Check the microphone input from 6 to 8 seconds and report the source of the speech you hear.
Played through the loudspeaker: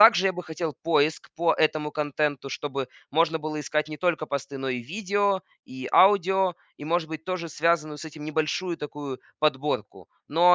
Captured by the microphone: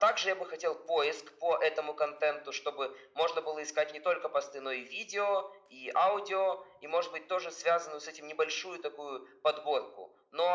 echo only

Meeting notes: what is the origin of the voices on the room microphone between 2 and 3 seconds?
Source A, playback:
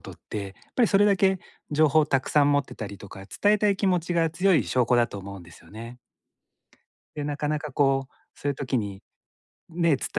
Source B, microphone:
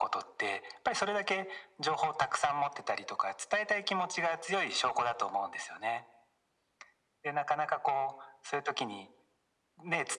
echo only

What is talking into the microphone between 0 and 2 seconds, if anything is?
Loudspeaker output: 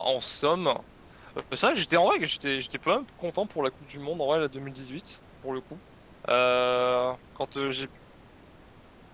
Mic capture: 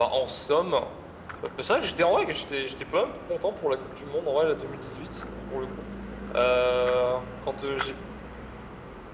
echo only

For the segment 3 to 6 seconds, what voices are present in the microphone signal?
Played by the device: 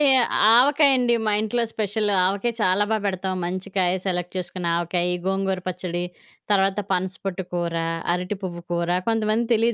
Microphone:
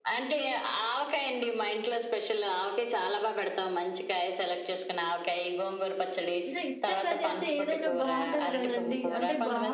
echo only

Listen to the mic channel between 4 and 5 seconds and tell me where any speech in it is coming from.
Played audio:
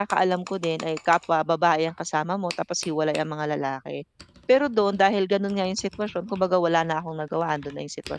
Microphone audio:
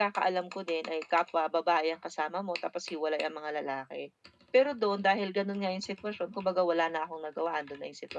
echo only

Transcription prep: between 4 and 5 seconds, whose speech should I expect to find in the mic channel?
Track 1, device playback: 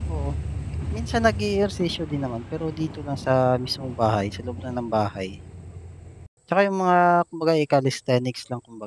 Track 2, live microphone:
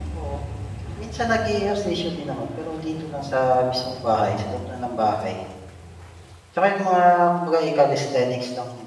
echo only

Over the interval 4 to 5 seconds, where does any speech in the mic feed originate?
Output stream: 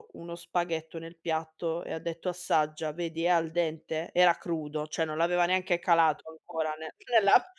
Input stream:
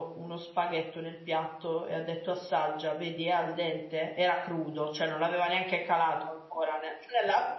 echo only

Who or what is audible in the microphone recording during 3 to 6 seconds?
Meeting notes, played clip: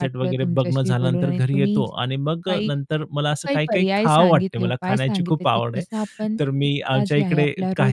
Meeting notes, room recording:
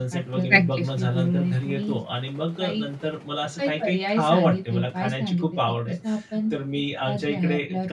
echo only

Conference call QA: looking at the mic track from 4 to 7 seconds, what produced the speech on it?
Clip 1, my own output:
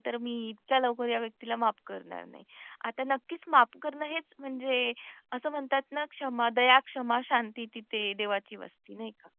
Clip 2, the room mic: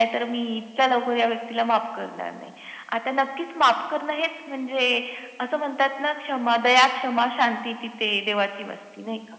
echo only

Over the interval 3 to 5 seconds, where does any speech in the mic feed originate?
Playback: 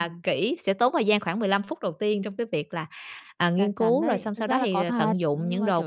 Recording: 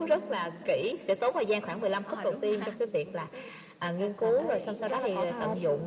both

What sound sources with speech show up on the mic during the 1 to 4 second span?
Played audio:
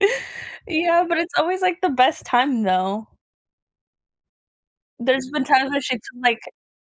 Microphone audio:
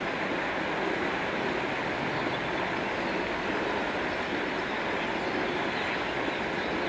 neither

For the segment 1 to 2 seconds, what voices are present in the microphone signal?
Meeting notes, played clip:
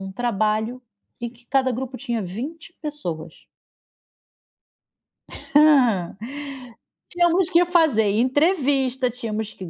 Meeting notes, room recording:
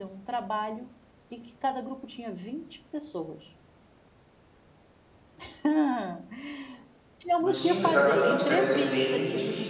echo only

